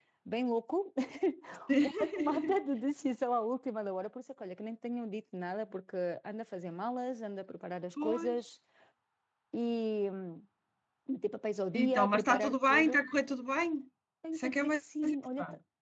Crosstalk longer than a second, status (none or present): present